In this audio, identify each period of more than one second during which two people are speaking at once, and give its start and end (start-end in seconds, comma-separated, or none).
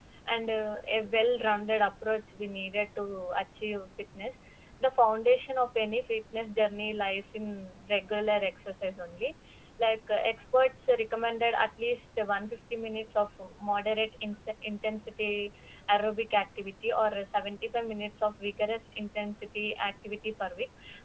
none